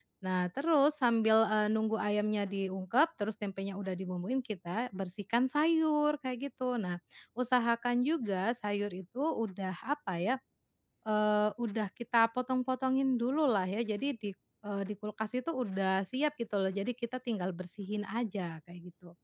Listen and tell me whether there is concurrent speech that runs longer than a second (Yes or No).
No